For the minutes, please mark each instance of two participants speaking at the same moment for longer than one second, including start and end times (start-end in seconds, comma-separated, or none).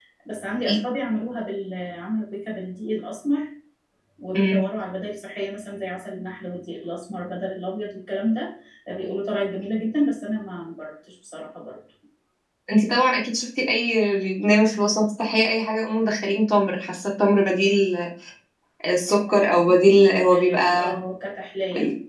19.1-20.9